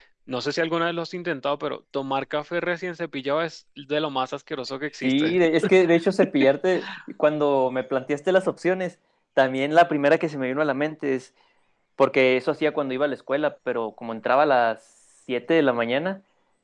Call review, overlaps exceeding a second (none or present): none